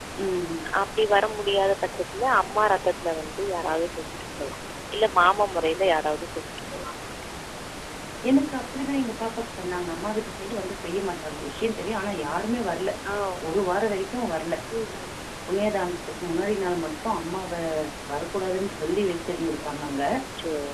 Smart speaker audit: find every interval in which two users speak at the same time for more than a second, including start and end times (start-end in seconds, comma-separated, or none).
none